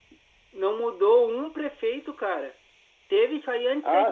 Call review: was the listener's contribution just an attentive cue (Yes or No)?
No